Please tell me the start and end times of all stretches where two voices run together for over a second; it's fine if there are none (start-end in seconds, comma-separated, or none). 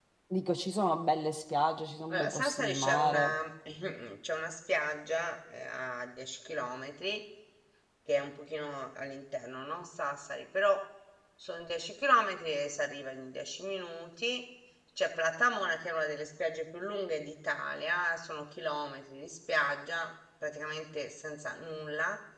2.1-3.3